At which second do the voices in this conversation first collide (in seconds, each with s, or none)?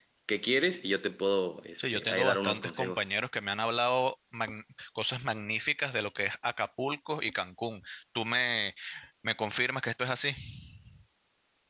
1.8 s